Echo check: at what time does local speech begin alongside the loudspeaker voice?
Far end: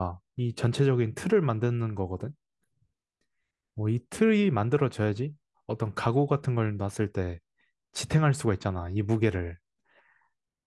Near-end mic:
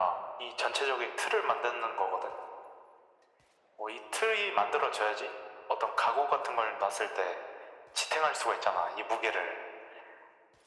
none

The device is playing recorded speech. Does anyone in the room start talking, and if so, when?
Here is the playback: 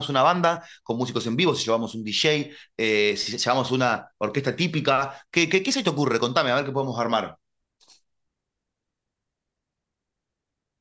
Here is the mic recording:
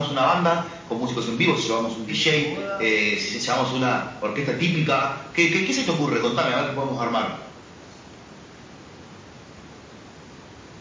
2.0 s

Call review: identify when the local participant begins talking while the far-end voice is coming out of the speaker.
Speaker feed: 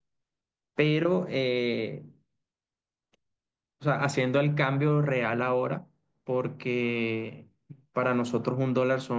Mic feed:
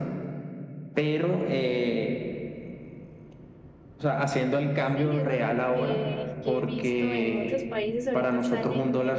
4.8 s

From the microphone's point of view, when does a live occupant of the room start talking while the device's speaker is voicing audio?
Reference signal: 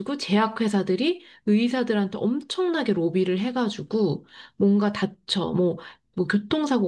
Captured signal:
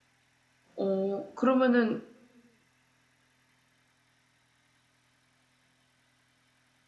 0.8 s

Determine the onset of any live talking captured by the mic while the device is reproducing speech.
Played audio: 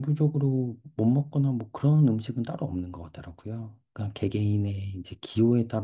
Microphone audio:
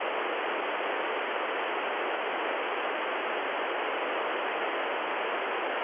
none

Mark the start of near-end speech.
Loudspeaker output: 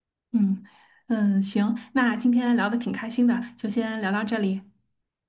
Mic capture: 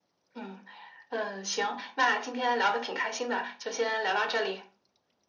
none

